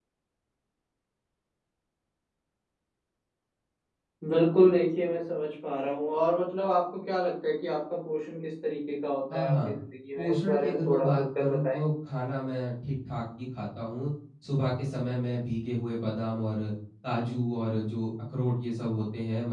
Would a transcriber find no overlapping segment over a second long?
No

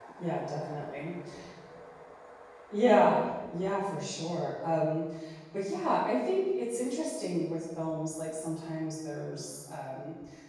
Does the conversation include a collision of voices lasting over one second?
No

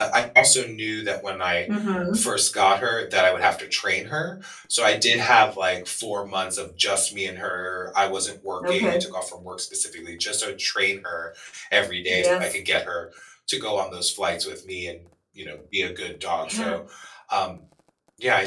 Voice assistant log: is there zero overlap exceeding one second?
Yes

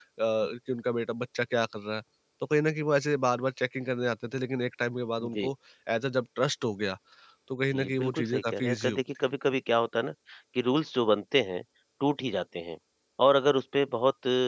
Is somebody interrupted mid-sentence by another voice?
Yes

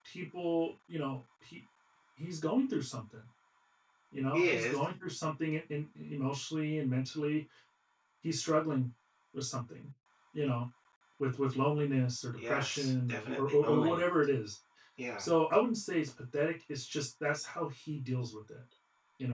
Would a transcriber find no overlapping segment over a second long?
No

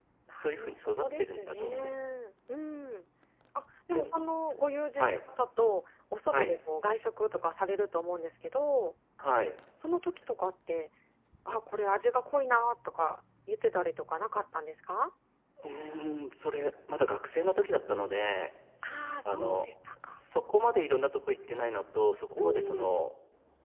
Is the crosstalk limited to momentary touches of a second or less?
No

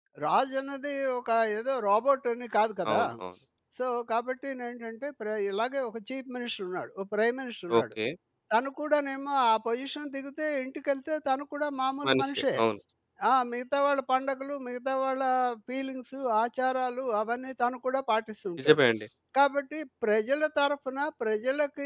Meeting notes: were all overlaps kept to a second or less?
Yes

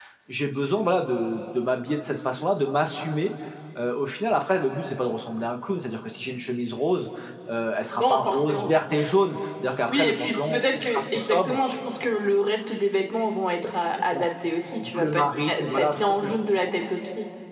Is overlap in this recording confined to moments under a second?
No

